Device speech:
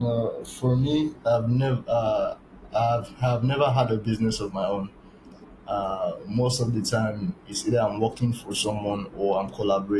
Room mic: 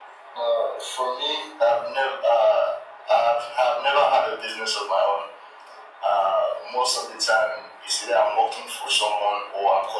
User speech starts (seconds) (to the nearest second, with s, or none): none